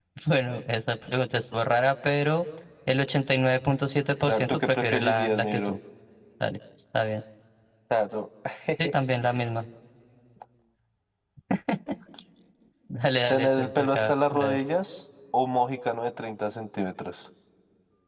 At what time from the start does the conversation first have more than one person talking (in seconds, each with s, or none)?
4.3 s